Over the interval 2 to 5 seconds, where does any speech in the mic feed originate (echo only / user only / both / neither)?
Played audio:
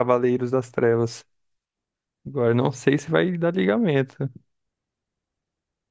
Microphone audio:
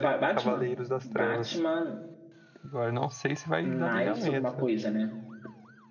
both